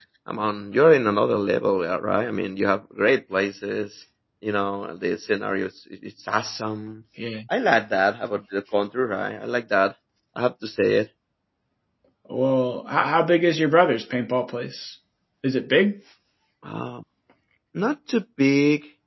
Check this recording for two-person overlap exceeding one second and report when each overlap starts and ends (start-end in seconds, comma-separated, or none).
none